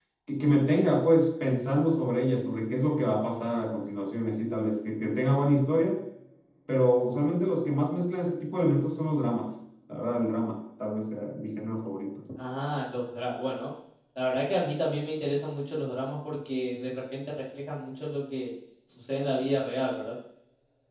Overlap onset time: none

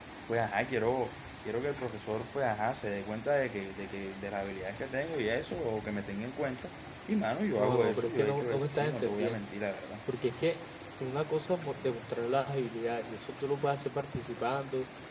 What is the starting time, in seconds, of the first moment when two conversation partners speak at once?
8 s

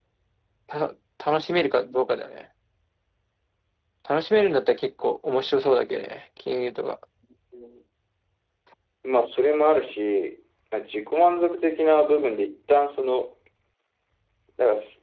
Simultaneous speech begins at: none

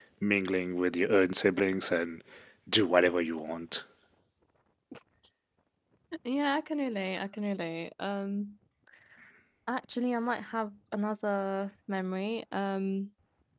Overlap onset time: none

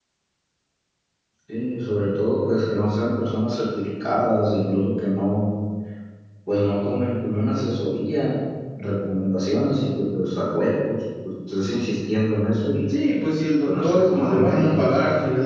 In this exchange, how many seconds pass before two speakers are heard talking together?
14 s

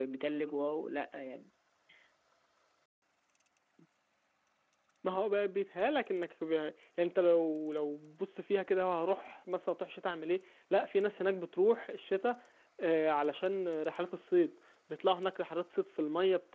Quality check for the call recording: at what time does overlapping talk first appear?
none

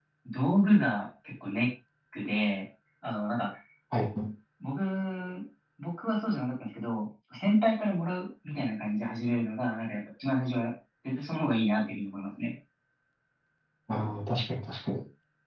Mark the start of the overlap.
none

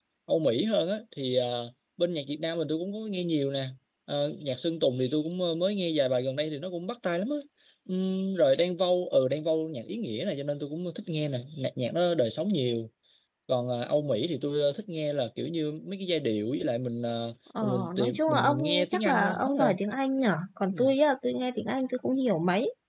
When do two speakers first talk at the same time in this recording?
18 s

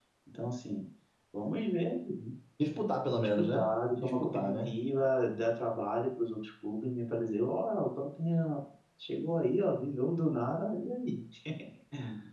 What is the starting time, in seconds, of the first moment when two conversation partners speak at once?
3 s

